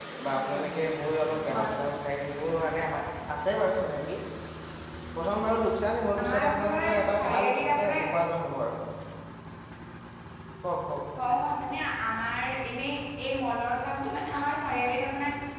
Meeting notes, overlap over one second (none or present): present